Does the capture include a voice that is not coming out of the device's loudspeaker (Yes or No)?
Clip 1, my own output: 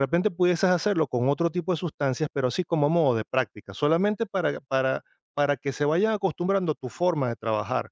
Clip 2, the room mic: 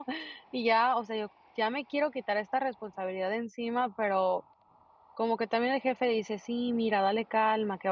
Yes